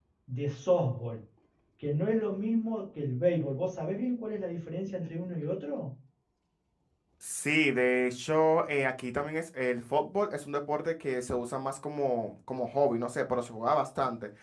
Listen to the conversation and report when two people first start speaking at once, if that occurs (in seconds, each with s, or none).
none